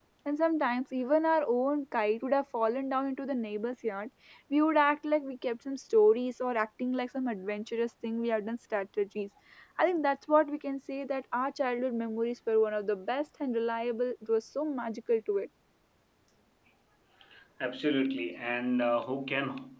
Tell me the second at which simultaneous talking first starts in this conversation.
none

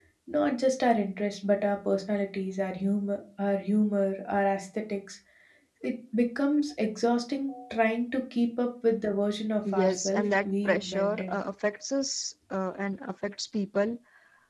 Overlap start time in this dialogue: 10 s

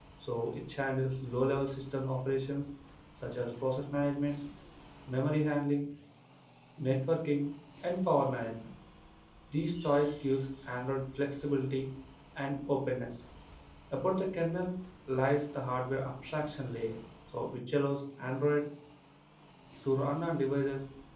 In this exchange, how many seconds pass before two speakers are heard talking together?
none

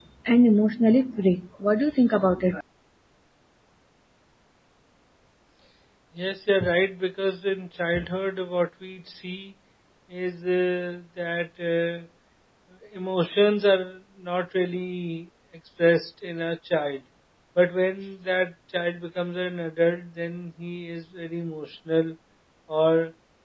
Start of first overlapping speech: none

